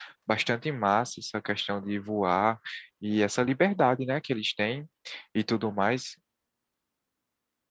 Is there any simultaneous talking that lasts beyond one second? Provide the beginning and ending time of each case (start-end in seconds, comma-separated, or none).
none